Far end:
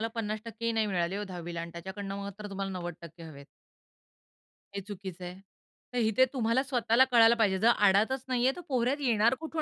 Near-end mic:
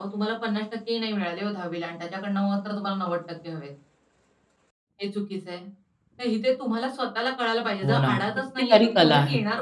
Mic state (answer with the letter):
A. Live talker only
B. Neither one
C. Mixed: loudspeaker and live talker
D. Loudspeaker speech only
C